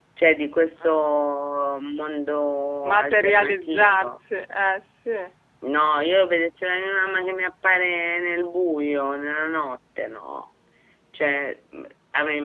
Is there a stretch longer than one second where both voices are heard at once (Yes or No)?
Yes